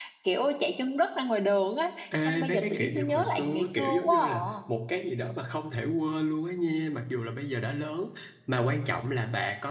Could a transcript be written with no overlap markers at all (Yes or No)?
No